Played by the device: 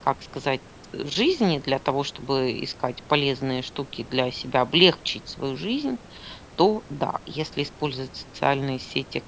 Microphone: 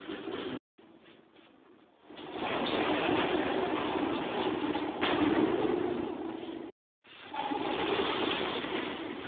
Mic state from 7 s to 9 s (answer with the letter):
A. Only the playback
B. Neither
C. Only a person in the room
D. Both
B